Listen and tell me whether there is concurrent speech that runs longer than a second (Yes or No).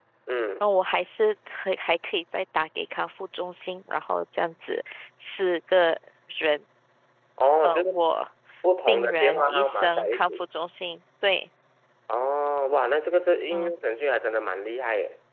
Yes